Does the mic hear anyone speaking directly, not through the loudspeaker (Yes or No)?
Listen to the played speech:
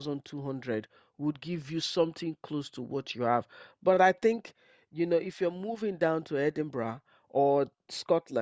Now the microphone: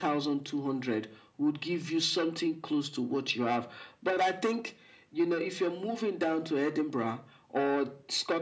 No